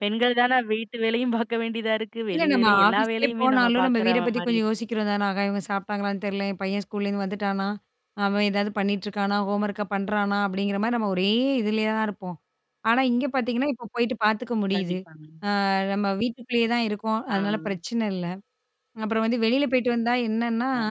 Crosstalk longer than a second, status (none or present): present